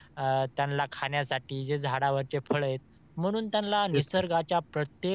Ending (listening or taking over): listening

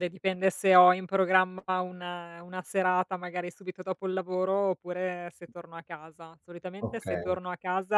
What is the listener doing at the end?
listening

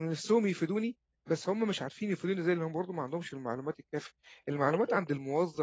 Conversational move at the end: listening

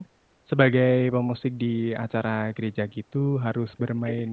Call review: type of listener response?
listening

